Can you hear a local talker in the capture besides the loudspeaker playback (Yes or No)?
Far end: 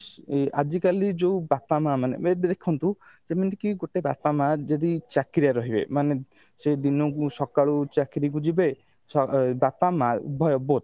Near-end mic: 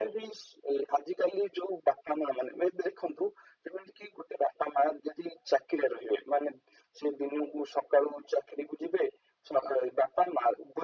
No